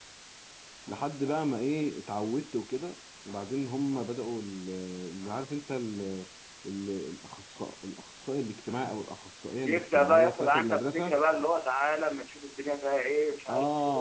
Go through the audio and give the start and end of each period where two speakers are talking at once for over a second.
9.6-11.2

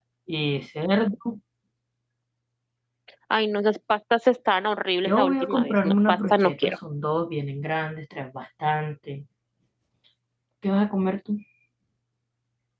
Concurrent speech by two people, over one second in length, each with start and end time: 5.1-6.7

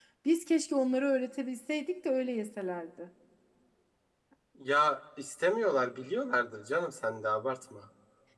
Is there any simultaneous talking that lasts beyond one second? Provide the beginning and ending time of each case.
none

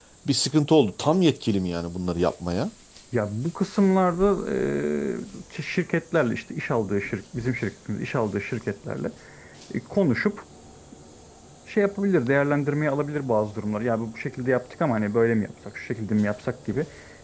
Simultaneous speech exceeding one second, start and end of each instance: none

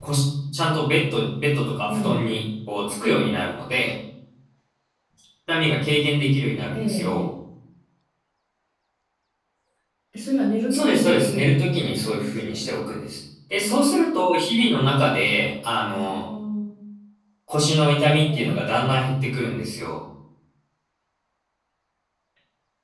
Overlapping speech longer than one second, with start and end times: 10.7-12.6

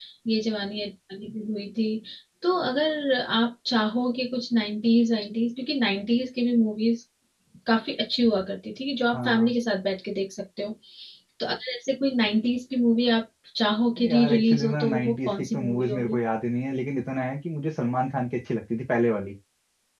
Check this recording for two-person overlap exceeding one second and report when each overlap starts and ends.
14.0-16.2

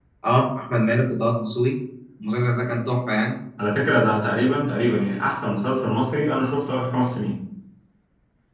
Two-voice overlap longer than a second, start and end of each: none

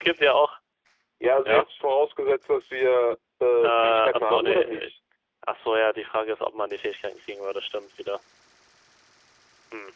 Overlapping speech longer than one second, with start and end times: 3.6-4.9

